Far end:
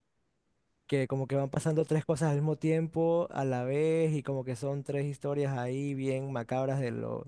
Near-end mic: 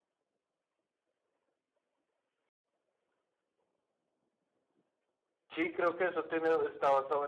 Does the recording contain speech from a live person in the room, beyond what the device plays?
Yes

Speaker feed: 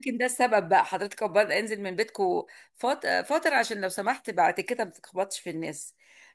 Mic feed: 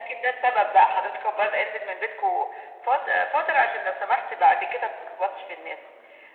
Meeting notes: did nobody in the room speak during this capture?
Yes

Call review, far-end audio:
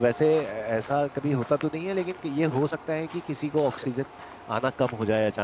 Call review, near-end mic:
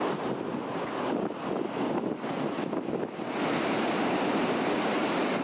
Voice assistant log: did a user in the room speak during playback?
No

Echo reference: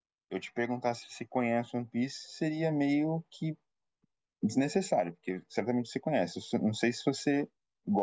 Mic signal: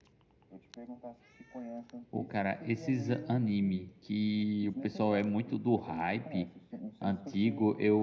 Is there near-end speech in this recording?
Yes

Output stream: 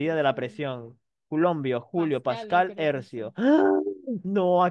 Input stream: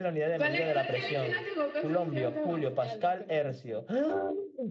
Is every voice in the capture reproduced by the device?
No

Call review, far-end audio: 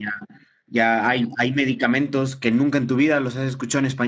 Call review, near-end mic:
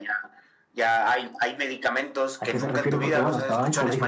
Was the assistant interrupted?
Yes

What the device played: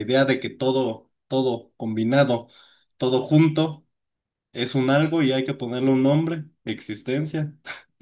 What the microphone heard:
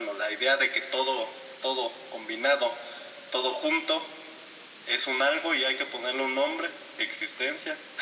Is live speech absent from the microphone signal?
Yes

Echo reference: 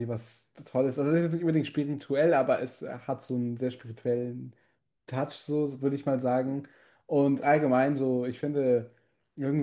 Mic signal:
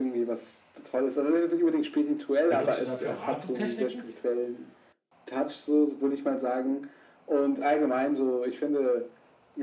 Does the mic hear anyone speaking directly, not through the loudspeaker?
Yes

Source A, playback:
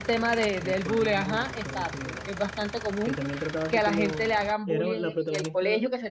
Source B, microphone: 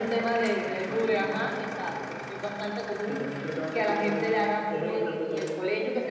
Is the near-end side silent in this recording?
Yes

